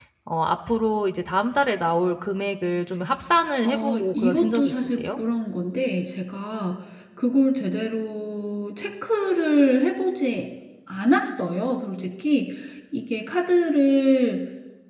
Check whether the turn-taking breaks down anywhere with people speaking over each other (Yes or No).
Yes